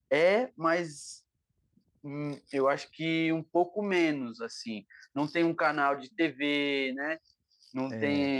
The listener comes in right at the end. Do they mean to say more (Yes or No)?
No